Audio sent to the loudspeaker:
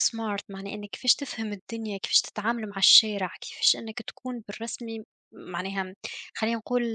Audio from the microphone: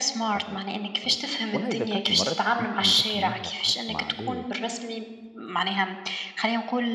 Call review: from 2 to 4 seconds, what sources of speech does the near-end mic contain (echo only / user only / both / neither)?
both